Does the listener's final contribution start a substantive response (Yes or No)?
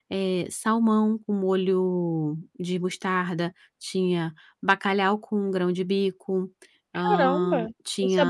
Yes